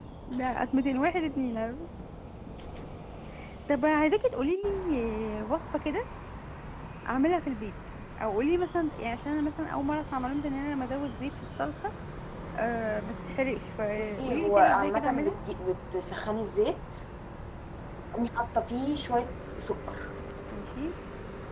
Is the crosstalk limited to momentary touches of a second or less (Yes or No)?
No